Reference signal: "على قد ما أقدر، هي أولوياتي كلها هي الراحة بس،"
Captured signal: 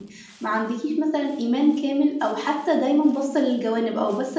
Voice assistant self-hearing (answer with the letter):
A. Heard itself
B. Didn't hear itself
B